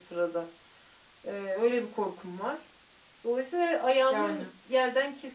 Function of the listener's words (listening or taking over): listening